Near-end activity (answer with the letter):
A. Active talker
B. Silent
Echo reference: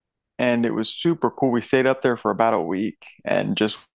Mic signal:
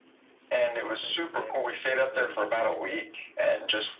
A